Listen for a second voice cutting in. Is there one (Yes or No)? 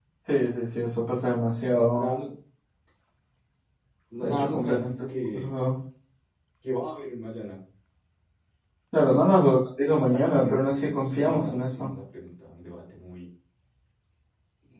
Yes